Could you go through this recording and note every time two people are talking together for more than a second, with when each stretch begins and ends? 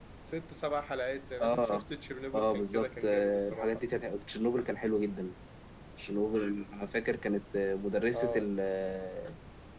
2.3-3.8

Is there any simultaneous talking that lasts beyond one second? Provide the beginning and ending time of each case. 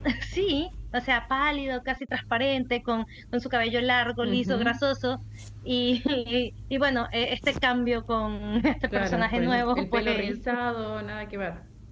8.9-10.4

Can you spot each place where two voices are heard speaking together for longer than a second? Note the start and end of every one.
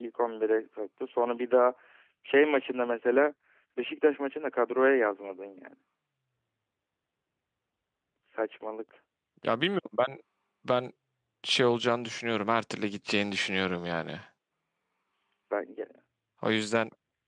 none

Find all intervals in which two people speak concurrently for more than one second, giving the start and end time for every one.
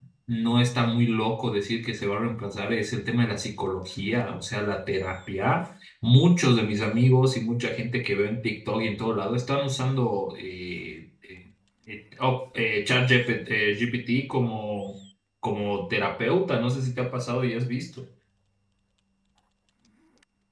none

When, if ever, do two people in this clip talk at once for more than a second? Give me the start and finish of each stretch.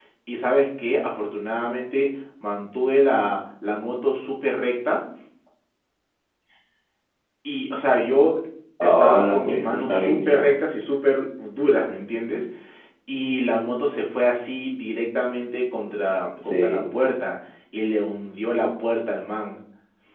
8.8-10.6

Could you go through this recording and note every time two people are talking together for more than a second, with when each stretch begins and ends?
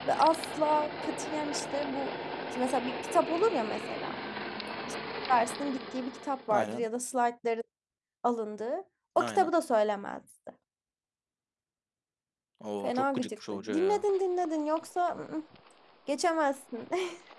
12.8-14.0

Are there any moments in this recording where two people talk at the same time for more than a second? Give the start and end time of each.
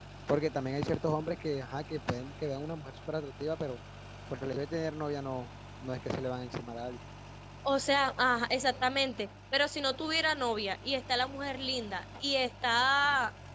none

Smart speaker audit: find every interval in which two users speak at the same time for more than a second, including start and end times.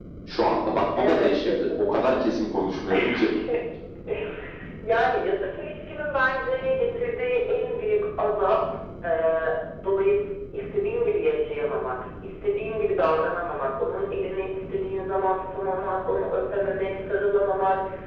1.0-2.2

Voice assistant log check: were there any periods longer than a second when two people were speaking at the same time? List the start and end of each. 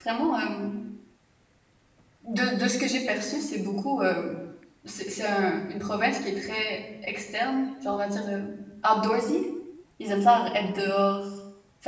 none

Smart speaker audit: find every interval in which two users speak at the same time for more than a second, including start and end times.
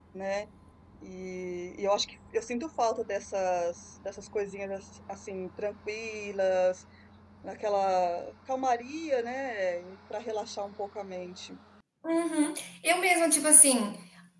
none

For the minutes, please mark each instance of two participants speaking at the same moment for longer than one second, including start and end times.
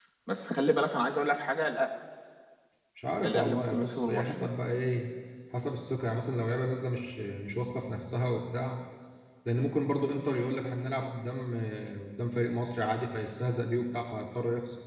3.2-4.5

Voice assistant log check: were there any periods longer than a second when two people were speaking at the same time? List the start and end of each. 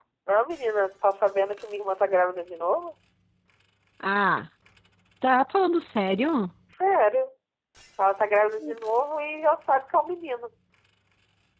none

